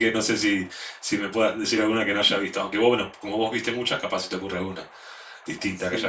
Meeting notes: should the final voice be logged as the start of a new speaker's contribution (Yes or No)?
Yes